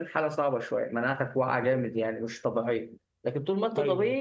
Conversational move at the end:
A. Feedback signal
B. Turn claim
A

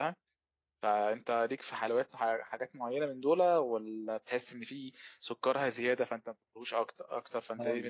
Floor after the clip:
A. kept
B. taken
B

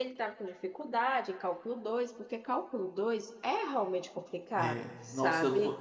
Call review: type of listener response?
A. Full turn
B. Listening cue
A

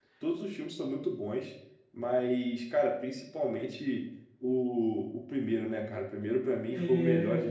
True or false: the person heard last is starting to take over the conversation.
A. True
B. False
A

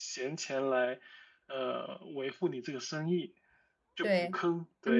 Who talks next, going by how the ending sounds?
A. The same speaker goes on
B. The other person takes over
B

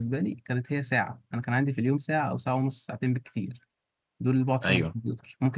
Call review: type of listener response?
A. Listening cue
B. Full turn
A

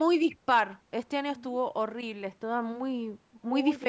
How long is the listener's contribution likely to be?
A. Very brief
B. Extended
B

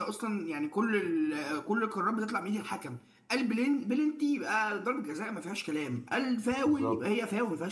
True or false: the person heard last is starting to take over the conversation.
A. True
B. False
B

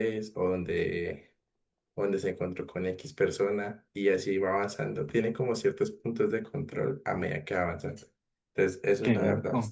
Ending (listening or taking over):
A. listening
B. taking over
A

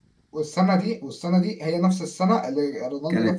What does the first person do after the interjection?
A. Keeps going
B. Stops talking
B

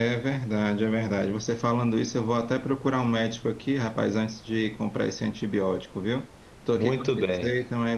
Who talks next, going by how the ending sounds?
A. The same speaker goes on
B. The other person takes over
A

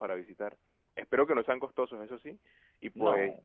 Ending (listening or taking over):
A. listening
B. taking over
A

